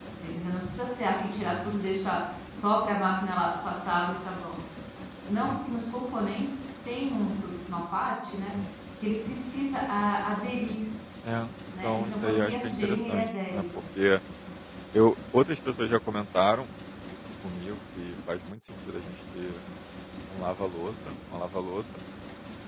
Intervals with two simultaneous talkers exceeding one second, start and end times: 11.8-13.7

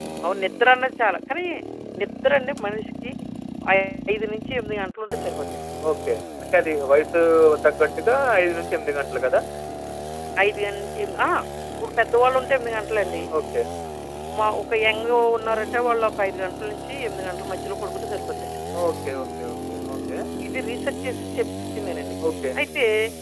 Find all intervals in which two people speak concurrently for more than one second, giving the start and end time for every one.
none

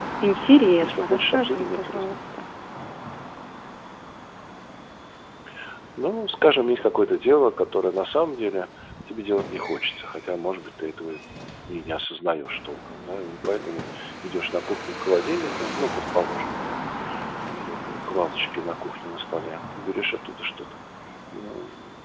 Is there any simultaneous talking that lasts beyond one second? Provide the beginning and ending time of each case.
0.8-2.1

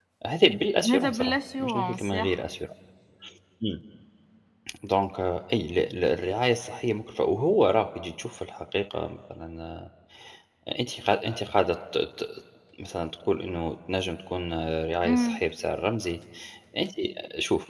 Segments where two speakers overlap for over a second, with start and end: 0.9-2.4

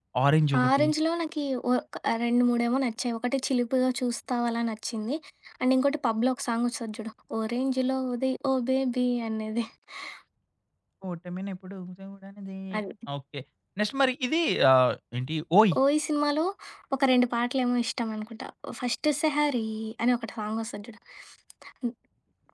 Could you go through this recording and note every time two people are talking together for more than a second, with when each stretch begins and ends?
none

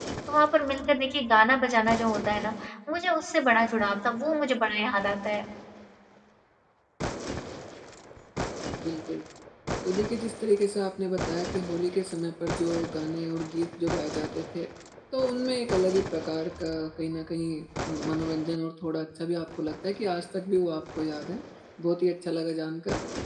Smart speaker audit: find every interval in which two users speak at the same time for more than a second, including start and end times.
none

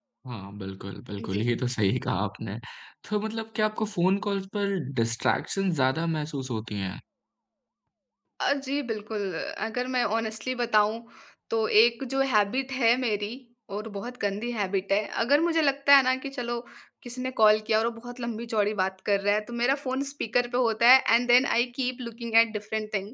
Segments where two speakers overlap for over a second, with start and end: none

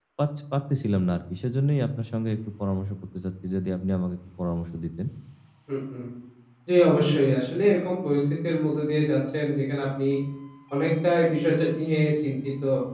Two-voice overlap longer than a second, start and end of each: none

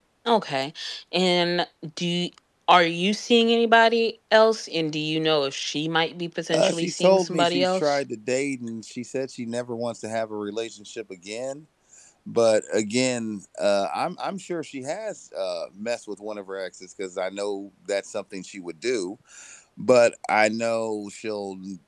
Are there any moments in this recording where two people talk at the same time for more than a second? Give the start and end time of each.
6.5-8.0

